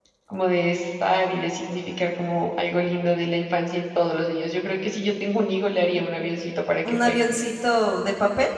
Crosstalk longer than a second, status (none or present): none